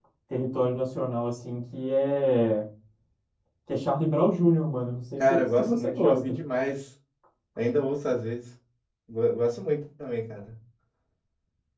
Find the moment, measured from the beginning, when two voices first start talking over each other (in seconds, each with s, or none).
5.2 s